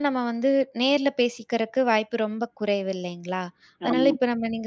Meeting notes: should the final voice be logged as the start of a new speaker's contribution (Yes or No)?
No